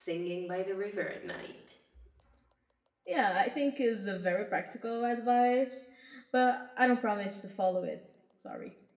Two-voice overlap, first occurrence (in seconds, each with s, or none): none